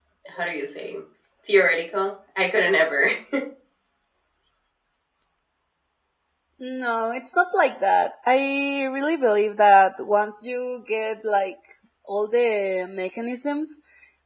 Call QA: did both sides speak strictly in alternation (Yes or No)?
Yes